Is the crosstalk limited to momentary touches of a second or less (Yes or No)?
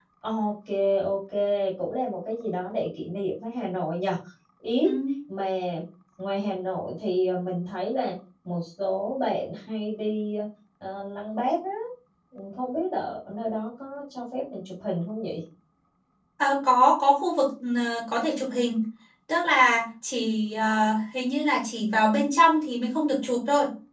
Yes